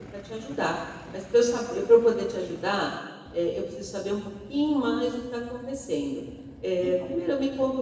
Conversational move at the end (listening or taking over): listening